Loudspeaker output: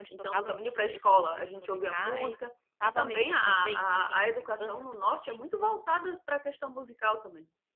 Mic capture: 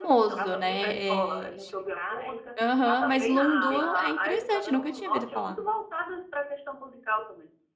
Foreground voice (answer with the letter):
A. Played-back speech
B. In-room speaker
B